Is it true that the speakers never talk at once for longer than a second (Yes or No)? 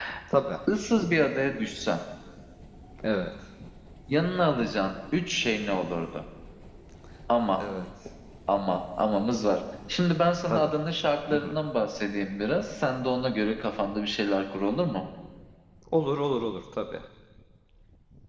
Yes